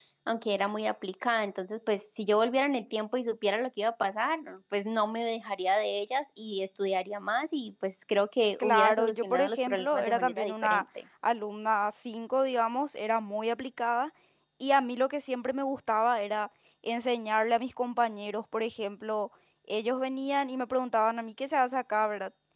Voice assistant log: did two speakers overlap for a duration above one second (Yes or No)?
Yes